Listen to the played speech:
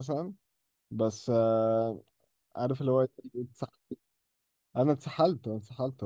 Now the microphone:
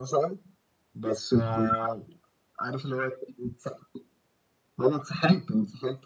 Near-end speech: none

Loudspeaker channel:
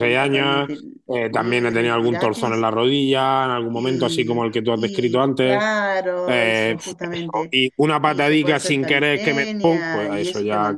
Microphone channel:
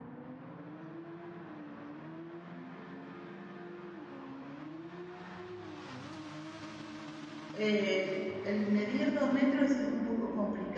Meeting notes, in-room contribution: present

